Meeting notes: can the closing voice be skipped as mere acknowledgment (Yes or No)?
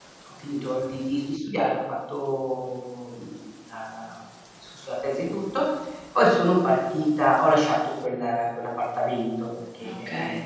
Yes